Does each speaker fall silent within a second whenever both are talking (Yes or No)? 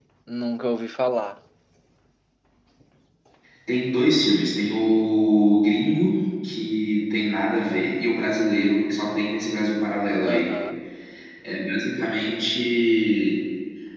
Yes